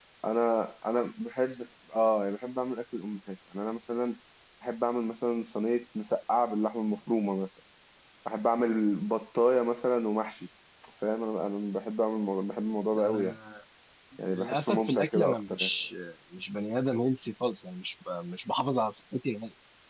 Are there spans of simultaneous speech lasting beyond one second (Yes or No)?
Yes